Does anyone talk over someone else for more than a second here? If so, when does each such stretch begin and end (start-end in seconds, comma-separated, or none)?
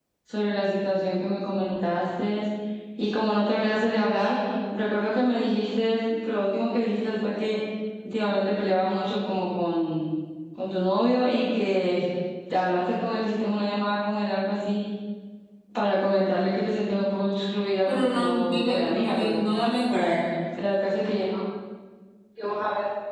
17.9-19.5